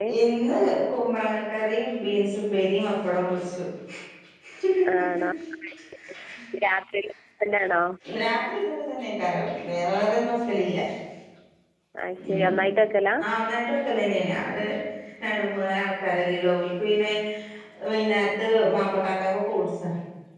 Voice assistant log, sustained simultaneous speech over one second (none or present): none